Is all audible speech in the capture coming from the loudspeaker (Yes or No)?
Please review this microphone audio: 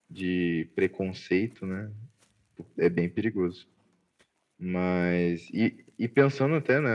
Yes